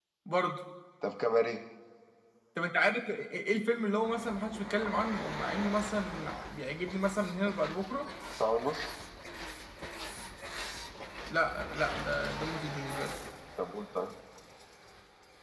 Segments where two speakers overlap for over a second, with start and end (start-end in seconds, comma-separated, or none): none